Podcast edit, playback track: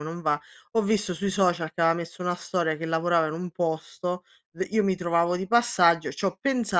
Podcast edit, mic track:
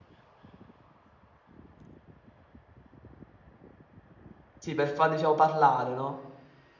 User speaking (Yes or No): Yes